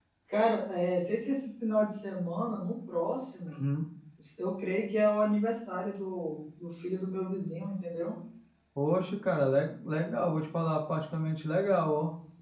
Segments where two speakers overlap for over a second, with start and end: none

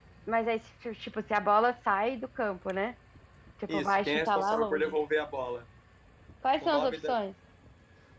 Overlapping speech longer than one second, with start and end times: 3.7-5.0

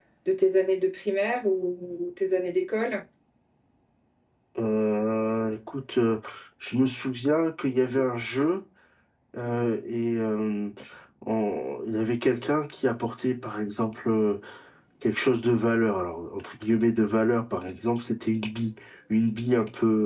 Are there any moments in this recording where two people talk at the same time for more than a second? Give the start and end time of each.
none

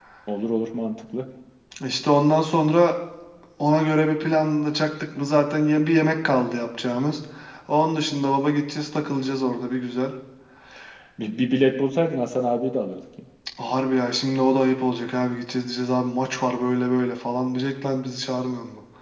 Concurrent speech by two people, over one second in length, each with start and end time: none

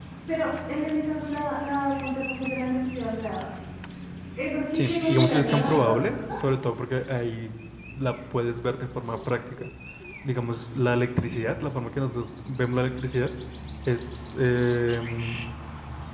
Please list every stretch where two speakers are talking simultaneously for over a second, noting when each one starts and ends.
4.7-6.2

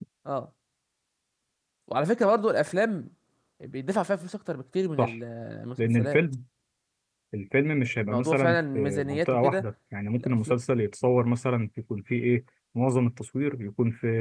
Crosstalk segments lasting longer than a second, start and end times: 8.1-9.6

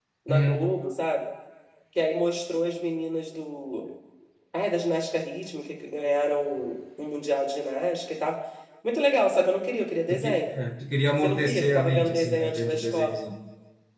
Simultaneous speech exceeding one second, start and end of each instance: 11.2-13.1

